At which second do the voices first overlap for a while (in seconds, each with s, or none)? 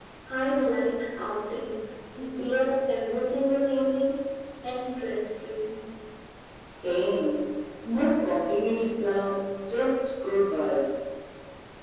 none